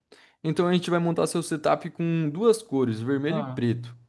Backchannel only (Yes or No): No